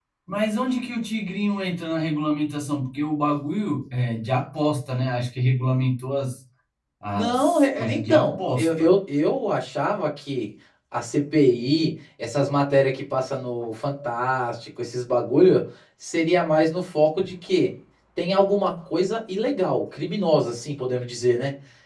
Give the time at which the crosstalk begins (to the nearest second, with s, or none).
7 s